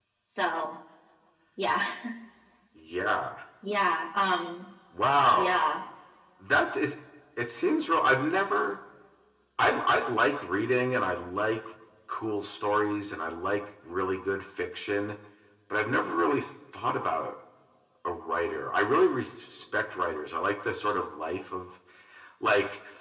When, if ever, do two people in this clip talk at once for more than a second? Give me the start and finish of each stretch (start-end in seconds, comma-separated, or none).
none